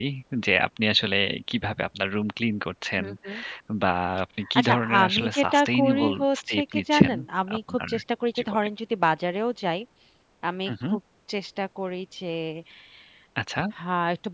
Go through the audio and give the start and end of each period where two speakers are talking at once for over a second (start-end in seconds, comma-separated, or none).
4.6-7.1